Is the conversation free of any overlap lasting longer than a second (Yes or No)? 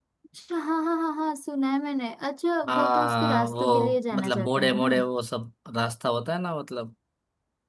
No